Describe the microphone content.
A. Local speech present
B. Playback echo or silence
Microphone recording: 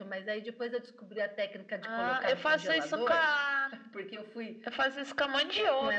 B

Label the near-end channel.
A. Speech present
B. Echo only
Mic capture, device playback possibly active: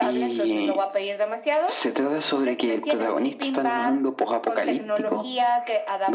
B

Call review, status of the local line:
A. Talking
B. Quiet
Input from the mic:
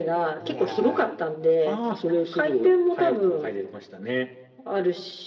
A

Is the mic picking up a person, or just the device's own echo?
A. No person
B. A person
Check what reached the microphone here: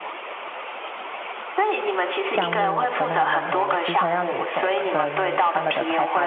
B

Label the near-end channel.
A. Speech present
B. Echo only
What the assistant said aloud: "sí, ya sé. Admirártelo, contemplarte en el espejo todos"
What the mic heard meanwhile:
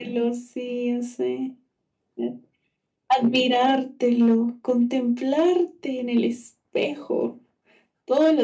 B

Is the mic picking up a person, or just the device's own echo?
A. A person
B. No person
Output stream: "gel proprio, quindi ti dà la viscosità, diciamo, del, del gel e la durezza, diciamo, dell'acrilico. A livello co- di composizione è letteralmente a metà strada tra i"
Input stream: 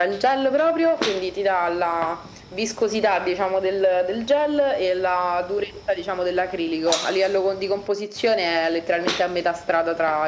B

